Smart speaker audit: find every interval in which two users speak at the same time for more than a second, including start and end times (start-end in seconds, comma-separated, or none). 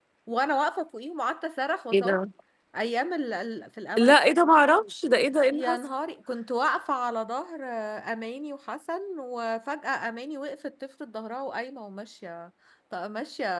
none